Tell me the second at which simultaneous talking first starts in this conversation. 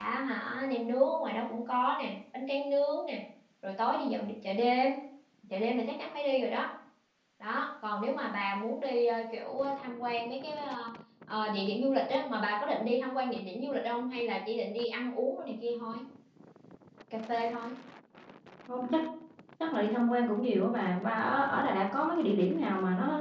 none

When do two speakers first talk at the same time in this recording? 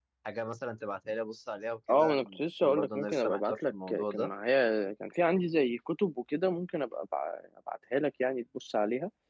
1.9 s

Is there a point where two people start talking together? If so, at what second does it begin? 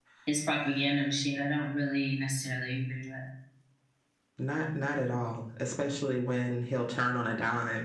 none

